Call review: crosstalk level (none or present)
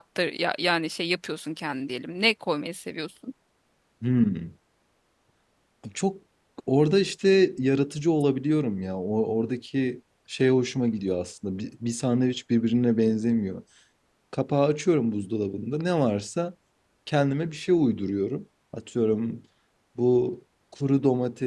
none